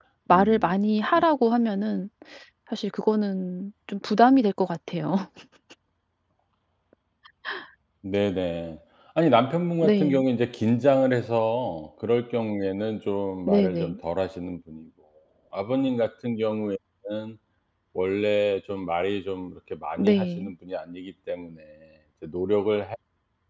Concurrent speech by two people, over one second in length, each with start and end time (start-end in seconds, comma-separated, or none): none